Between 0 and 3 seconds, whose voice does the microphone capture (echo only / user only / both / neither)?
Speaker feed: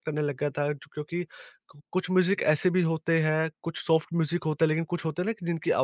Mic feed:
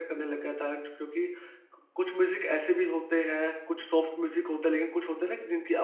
echo only